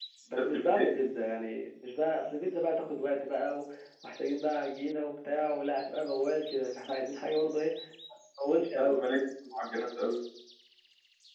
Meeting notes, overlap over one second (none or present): none